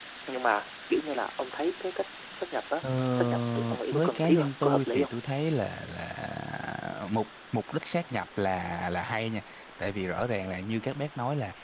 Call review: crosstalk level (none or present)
present